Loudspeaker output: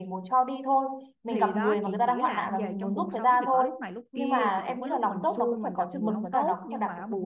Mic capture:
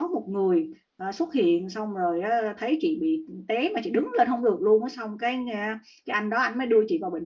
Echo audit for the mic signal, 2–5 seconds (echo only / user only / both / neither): user only